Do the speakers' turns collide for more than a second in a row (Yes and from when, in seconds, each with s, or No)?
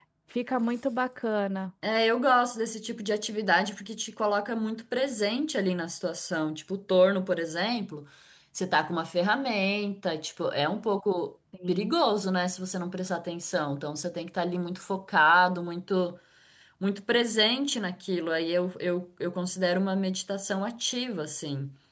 No